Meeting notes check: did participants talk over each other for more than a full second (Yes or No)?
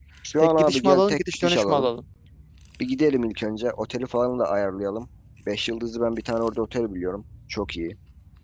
Yes